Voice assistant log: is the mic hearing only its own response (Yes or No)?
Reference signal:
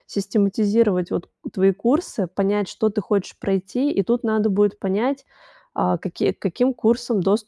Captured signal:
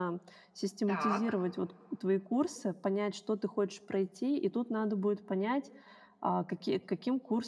No